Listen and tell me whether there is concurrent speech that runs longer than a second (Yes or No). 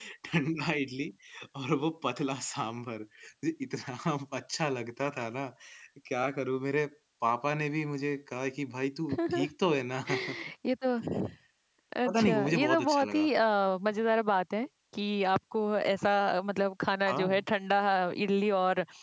Yes